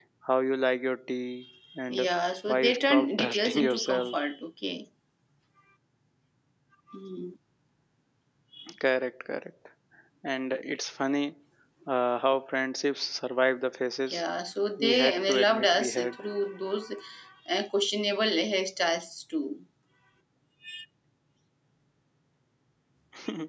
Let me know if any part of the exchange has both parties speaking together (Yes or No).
Yes